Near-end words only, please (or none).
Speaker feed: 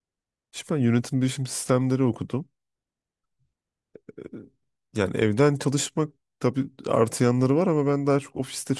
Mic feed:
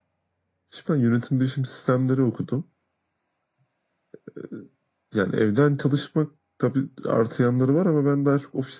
none